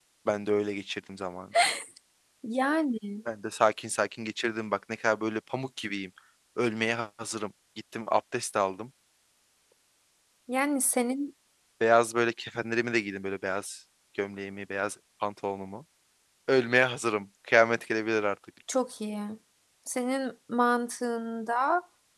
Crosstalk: none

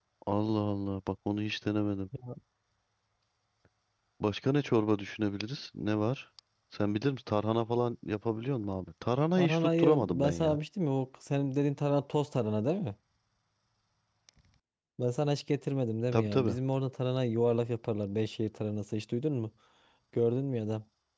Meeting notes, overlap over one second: present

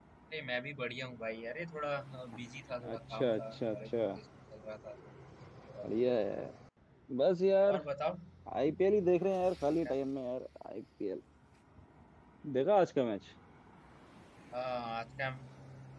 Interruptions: present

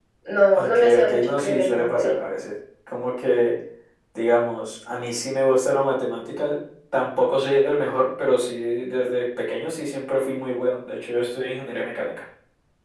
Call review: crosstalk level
present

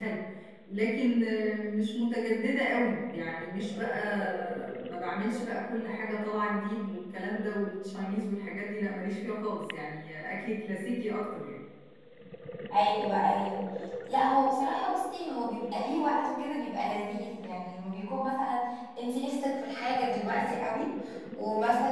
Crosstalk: none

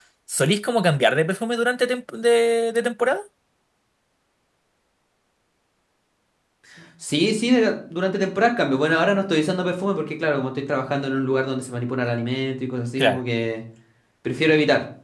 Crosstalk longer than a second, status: none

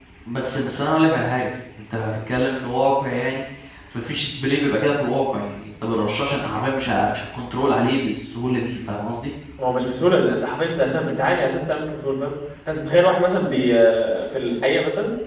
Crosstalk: none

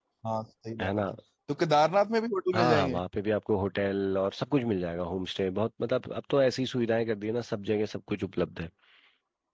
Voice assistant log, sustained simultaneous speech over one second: none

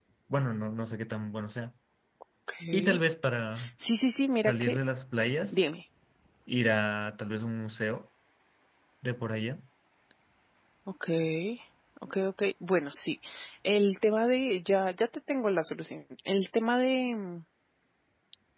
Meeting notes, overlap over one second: none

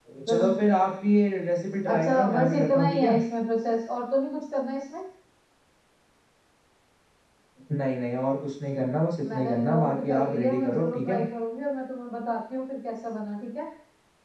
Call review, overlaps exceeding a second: present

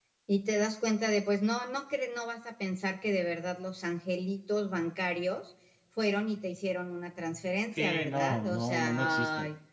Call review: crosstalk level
present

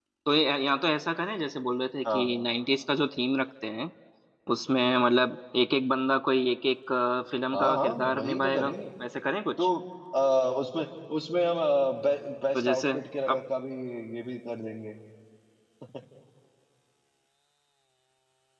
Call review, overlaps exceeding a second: present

